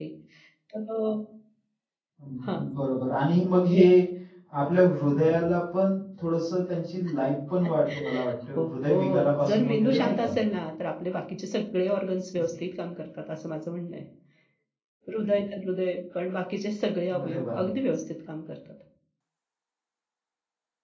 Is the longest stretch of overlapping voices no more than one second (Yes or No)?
No